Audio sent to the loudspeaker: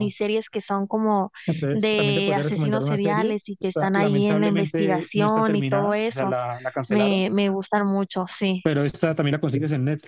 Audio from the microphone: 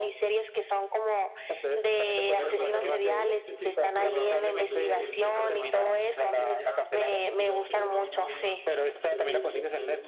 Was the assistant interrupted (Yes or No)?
Yes